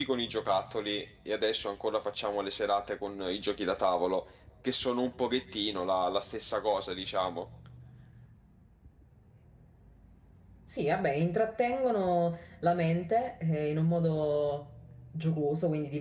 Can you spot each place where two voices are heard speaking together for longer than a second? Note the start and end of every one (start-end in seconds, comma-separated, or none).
none